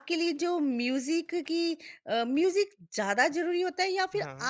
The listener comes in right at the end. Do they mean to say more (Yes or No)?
No